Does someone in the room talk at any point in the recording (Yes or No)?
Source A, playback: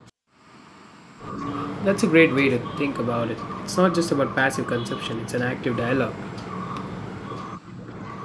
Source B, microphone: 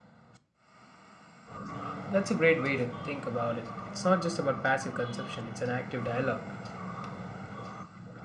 No